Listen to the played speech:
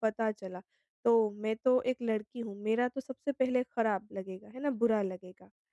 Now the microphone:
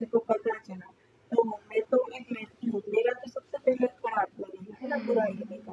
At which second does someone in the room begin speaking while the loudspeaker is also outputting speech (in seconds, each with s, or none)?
4.8 s